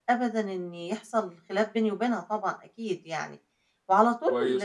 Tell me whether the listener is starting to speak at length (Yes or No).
Yes